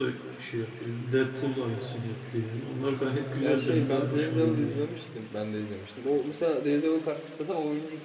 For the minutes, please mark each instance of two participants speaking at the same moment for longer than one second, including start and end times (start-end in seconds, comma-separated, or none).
3.4-4.8